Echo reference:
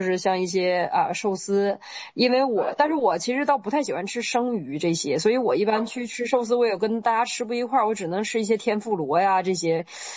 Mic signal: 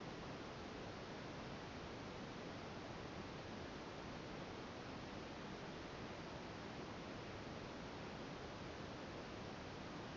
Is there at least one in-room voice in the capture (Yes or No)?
No